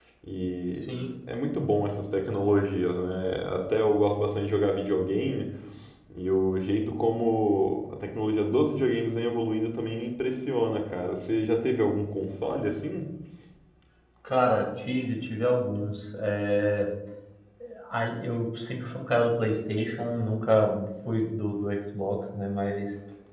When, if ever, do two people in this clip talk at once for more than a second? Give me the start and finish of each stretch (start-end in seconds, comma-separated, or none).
none